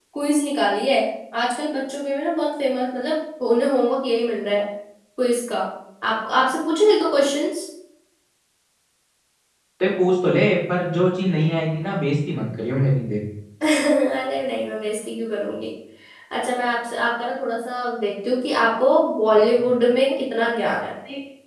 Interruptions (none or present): none